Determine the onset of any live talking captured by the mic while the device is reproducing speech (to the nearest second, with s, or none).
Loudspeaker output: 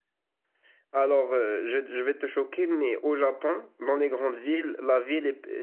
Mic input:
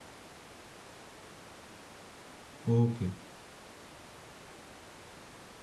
3 s